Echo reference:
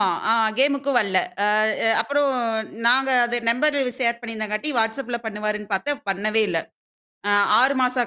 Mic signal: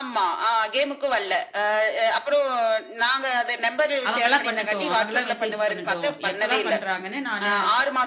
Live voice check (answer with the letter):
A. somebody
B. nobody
A